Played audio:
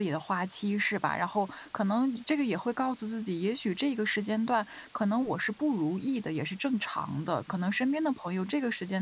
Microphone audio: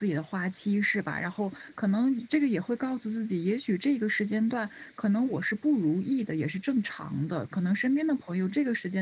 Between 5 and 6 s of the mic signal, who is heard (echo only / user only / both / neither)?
echo only